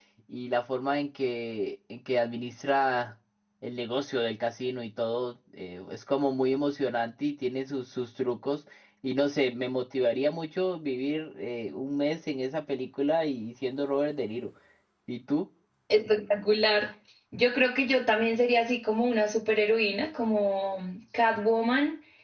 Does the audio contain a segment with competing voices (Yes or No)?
No